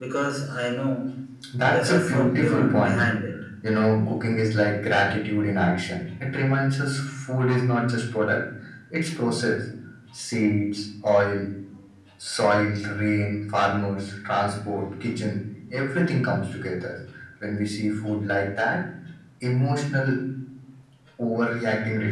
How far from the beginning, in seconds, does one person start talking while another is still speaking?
1.6 s

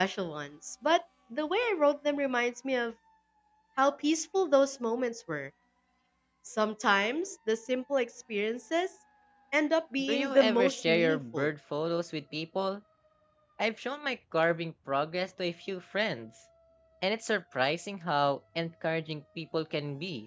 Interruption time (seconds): 10.0 s

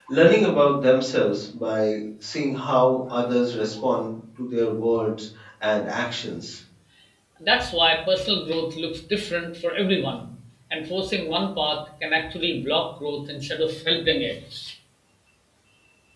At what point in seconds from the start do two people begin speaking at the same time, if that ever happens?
none

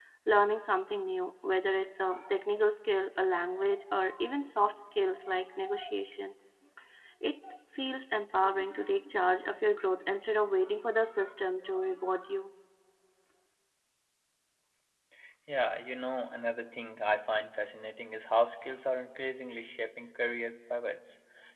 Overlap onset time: none

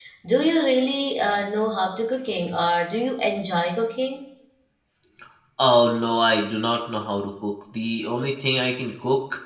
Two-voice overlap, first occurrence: none

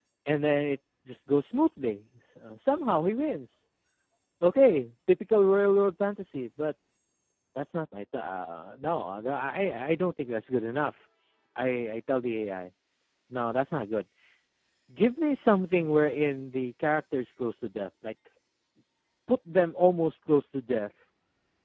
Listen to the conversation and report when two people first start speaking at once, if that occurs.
none

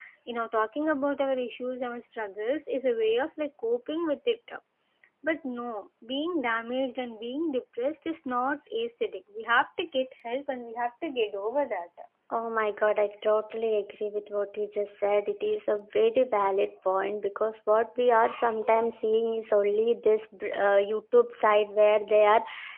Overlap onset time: none

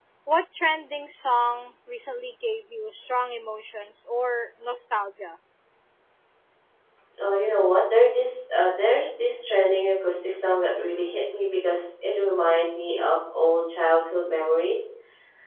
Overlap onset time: none

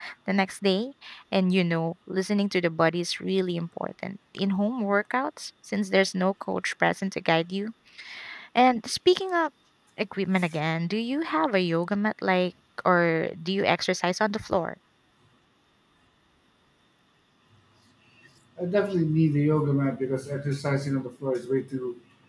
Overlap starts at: none

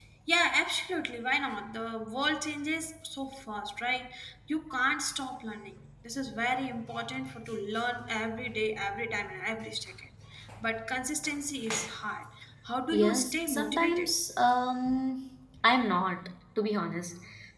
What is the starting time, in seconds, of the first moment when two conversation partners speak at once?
12.9 s

